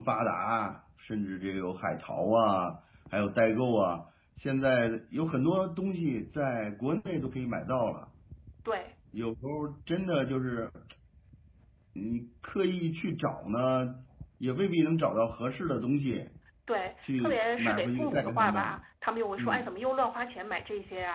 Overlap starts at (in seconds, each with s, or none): 17.2 s